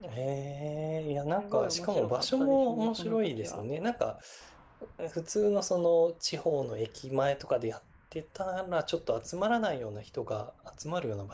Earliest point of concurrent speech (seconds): 1 s

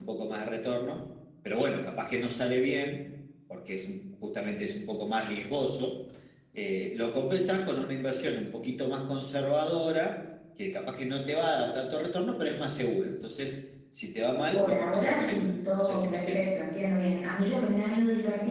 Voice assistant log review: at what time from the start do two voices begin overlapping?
15 s

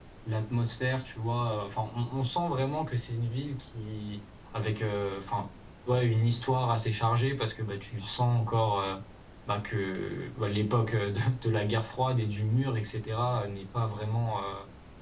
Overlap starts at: none

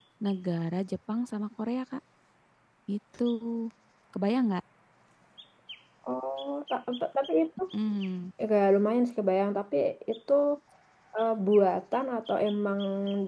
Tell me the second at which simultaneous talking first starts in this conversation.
none

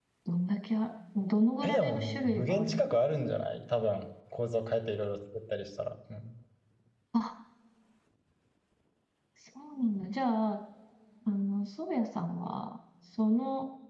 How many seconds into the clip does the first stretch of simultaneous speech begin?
2 s

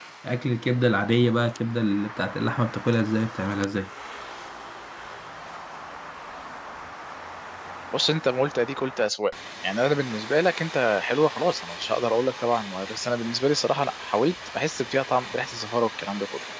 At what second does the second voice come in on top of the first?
none

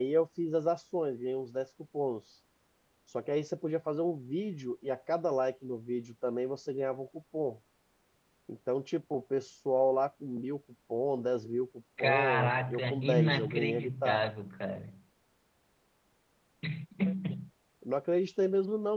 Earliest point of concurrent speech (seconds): 12 s

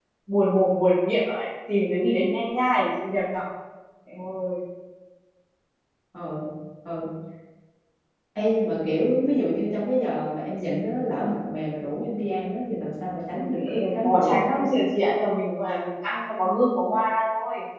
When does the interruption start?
13 s

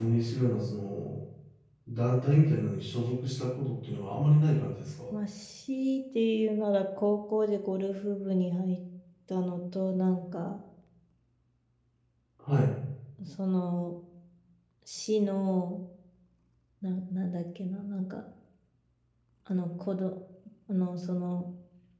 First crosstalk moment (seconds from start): none

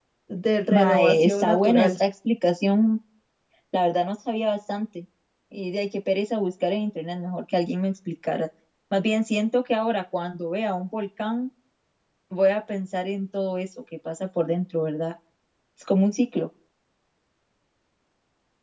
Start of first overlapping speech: 1 s

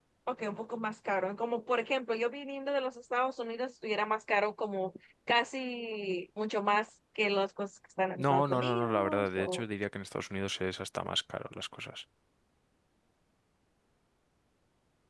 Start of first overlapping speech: 8 s

